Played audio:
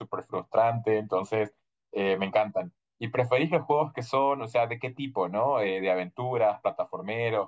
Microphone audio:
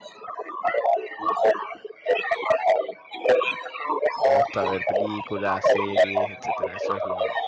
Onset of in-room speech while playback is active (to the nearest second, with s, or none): 4 s